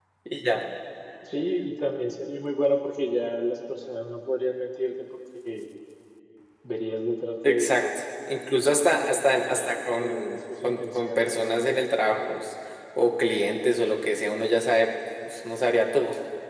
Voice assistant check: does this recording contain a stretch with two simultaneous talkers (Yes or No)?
Yes